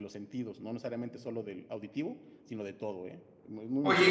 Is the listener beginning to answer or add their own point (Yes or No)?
Yes